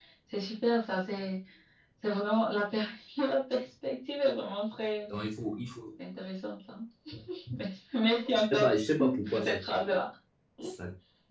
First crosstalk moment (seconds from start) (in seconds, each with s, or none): 8.3 s